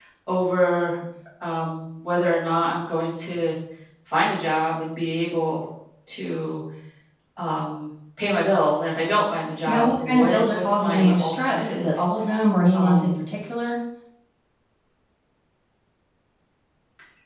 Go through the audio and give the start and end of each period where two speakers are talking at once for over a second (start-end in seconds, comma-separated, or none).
9.7-12.0